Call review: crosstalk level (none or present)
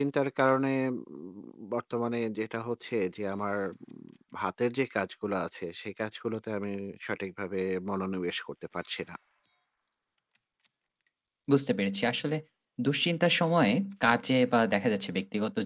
none